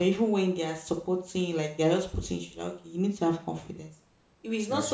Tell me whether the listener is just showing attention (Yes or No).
Yes